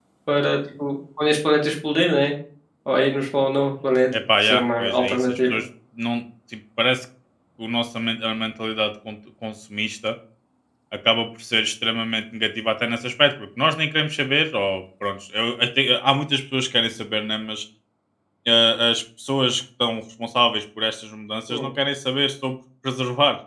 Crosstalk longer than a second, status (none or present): present